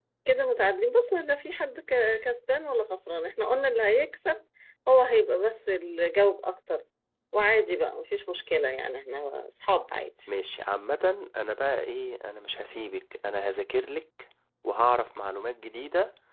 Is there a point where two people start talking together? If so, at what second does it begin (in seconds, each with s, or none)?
none